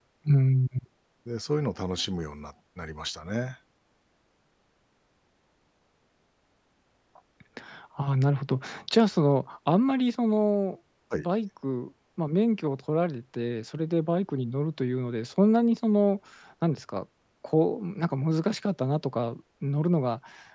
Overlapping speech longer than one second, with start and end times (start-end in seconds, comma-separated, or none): none